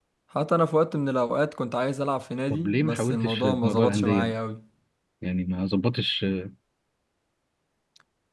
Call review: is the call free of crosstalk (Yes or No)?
No